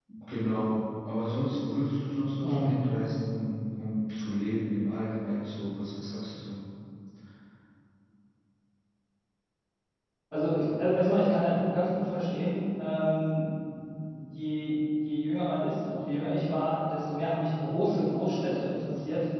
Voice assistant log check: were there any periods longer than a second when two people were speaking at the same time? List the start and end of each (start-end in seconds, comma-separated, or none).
none